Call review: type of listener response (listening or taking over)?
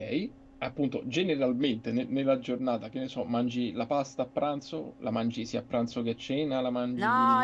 taking over